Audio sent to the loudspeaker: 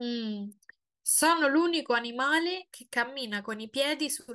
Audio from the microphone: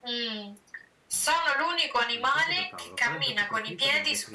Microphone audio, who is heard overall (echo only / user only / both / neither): both